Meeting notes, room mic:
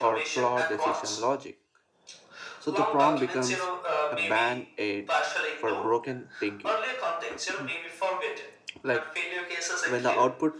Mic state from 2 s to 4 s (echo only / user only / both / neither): both